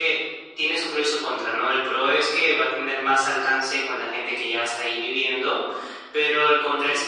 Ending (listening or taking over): listening